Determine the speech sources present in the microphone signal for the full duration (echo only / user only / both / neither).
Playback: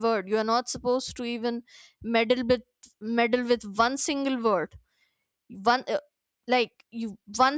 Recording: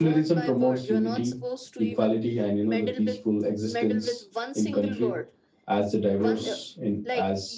both